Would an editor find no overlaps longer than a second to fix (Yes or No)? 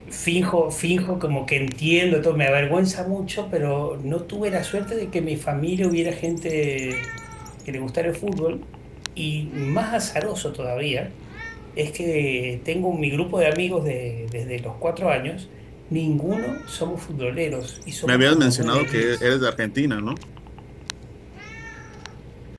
No